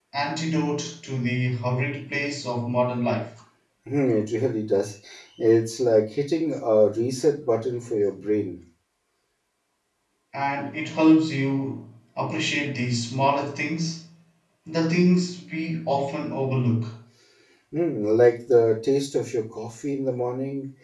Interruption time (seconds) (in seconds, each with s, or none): none